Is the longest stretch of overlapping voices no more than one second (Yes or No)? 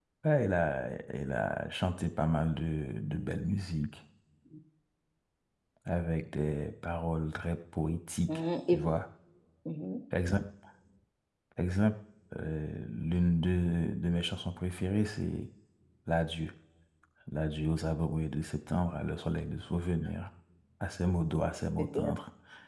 Yes